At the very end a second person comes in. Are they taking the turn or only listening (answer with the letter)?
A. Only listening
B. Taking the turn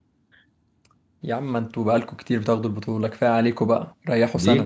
B